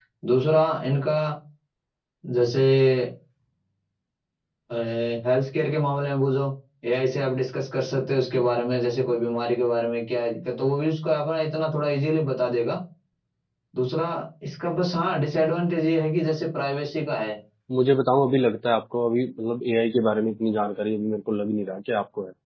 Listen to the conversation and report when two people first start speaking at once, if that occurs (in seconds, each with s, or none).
none